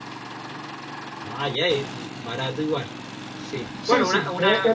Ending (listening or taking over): taking over